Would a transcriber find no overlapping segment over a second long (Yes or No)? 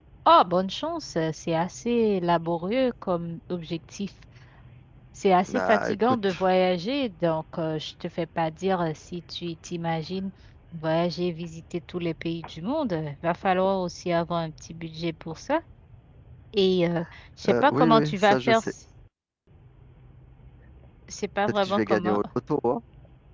No